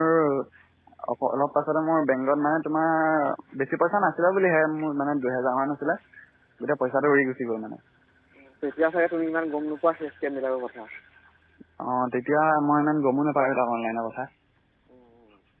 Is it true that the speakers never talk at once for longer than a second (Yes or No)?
Yes